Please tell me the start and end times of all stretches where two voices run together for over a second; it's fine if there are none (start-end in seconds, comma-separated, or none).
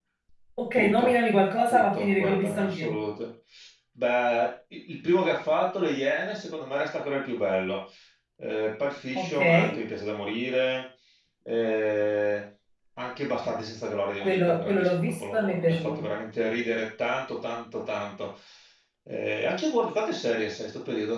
1.7-3.0, 14.2-16.0